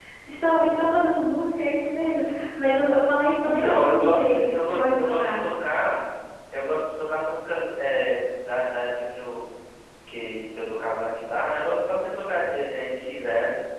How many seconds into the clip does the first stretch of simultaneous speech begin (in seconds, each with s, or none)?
3.4 s